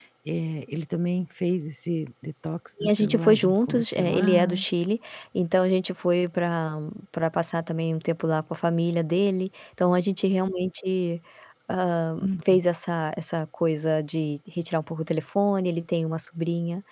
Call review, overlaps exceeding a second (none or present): present